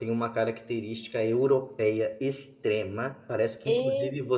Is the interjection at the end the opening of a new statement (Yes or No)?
No